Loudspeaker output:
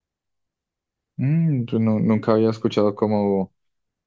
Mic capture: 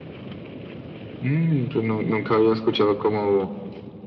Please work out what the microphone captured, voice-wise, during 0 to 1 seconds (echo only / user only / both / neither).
neither